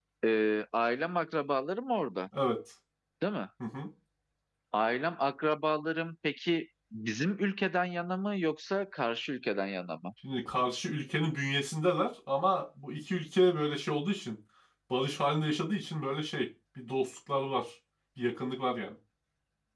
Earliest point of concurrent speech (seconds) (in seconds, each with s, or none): none